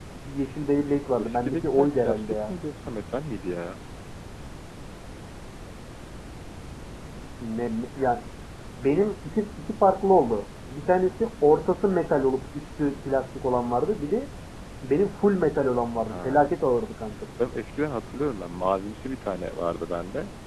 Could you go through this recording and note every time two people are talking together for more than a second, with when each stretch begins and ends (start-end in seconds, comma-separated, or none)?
1.2-2.5